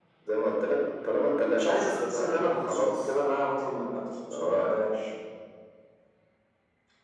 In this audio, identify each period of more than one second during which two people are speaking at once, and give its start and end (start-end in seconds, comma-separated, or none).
1.5-3.0